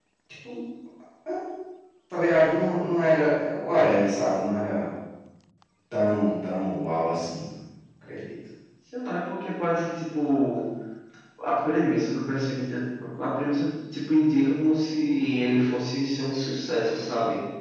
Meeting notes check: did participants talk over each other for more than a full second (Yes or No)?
No